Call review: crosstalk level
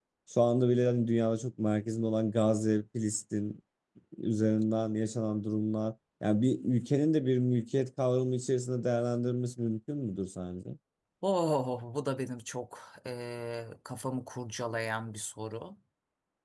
none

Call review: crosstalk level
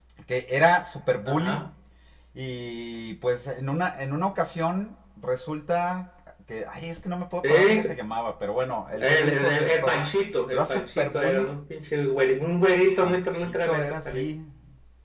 present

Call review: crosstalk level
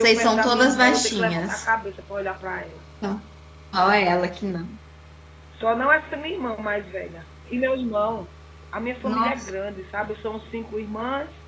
present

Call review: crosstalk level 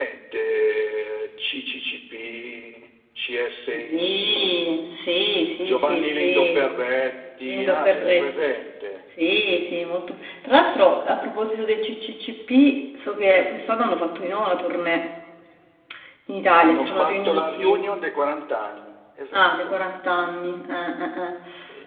present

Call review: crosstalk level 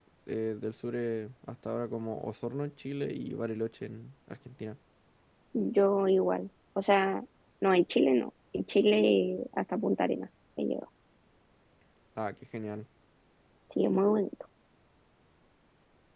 none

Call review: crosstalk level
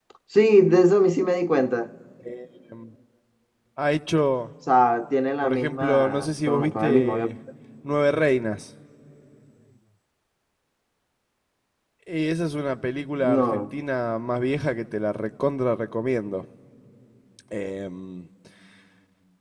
present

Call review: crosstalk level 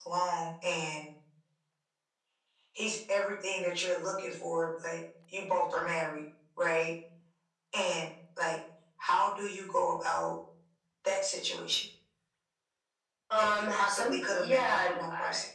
present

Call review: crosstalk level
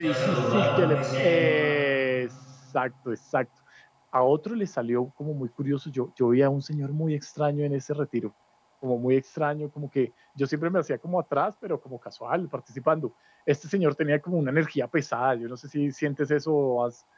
present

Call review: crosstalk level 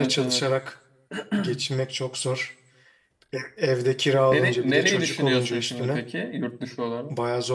present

